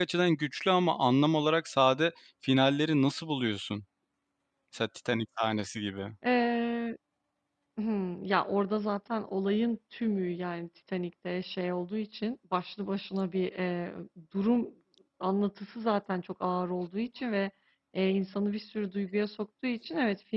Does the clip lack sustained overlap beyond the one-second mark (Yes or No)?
Yes